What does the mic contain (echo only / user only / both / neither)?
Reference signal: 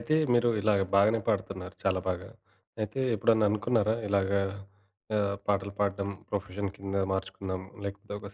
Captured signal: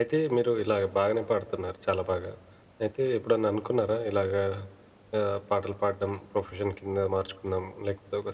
echo only